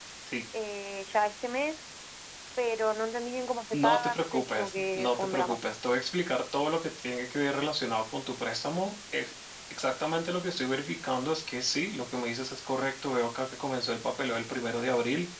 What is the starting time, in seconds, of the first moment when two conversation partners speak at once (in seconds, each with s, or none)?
3.7 s